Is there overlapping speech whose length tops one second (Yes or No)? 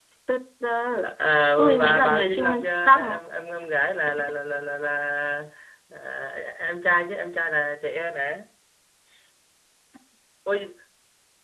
Yes